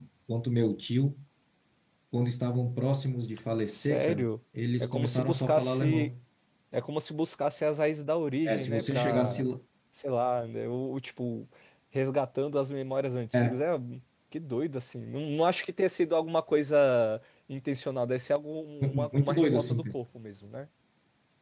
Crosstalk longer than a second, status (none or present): present